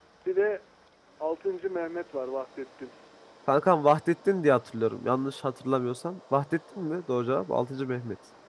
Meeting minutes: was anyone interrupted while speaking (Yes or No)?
No